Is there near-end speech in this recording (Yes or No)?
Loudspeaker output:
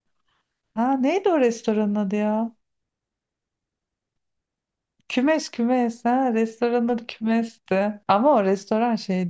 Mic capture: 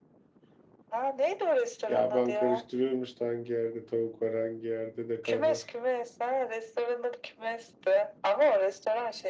Yes